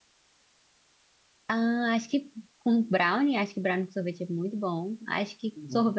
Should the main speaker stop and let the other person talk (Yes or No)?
No